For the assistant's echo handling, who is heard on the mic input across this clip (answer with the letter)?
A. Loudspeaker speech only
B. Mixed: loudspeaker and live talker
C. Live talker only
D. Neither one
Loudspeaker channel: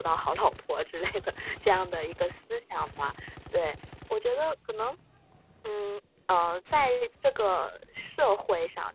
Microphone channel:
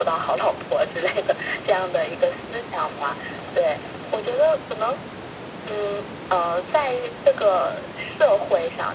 A